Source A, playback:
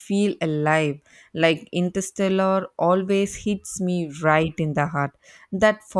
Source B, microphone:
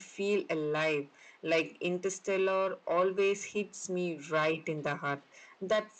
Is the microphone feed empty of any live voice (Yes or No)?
Yes